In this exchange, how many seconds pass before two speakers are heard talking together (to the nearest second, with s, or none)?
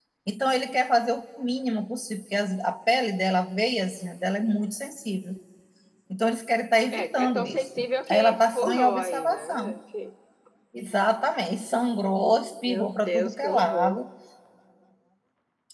7 s